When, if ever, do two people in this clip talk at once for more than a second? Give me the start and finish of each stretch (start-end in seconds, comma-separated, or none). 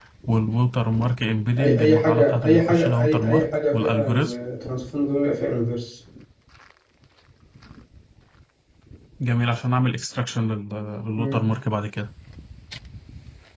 1.6-4.3